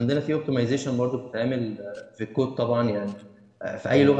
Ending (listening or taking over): listening